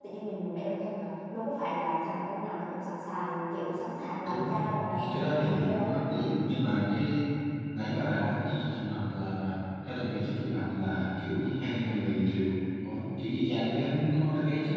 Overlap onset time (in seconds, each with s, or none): 4.2 s